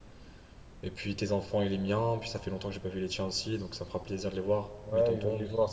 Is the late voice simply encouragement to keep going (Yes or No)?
No